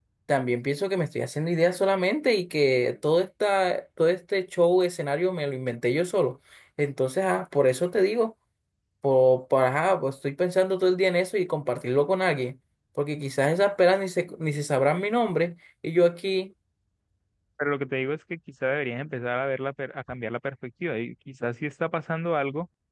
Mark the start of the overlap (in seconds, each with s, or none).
none